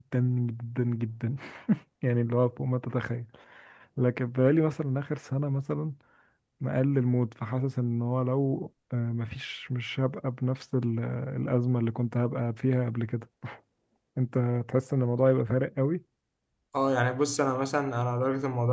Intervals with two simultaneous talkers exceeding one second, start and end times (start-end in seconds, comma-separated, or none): none